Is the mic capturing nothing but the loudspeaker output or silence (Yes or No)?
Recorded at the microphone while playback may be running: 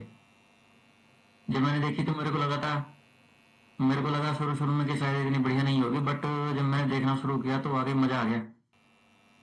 Yes